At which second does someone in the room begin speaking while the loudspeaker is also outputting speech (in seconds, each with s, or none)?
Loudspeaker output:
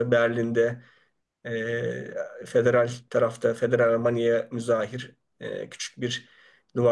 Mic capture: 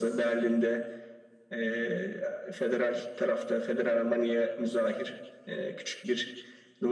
none